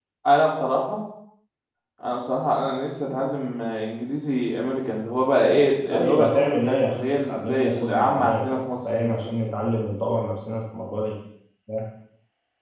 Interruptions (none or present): present